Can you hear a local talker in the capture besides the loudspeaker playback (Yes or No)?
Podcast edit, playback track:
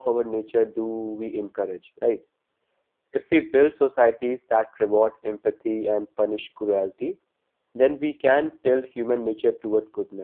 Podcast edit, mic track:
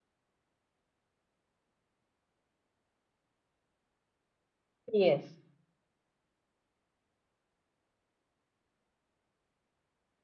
Yes